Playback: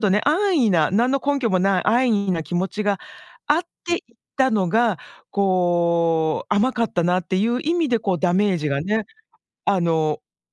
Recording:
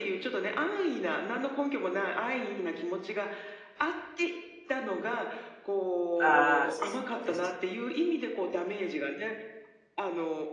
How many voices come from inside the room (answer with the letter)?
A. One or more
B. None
A